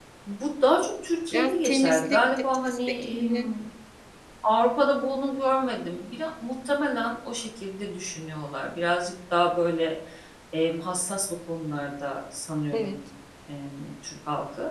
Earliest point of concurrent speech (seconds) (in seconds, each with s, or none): 1.3 s